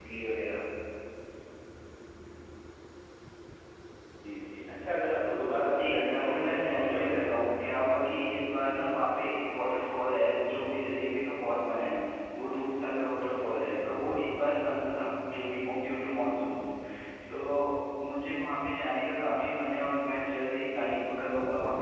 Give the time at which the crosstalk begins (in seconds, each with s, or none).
5.7 s